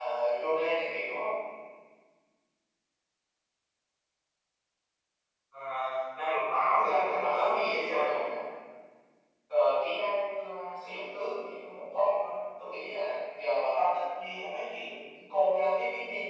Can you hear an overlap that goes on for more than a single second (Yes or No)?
Yes